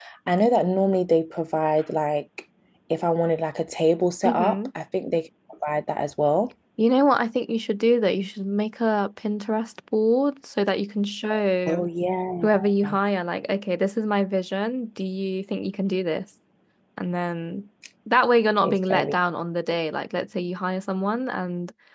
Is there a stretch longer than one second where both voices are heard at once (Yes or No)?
No